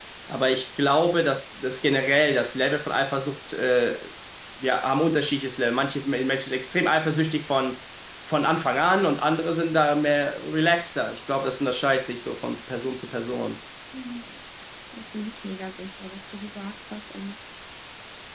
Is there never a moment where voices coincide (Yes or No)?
Yes